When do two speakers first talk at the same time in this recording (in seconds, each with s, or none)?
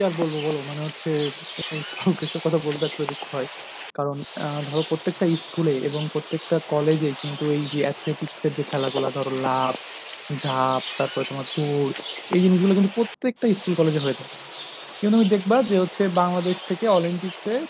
none